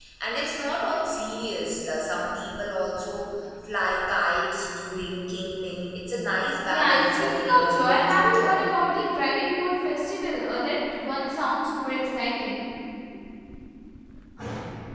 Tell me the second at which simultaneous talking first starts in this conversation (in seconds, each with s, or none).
6.7 s